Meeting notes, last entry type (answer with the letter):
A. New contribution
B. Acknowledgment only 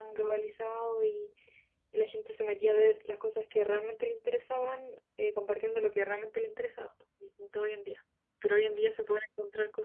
B